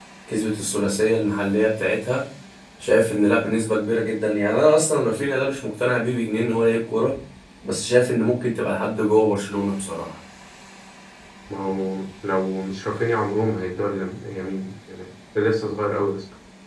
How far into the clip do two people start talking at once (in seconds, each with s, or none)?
none